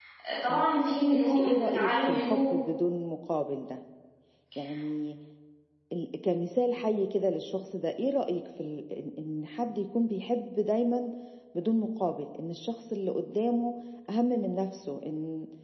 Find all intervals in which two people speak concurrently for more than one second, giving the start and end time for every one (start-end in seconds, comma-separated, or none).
1.1-2.6